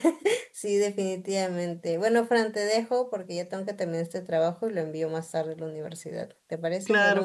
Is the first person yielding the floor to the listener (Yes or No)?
Yes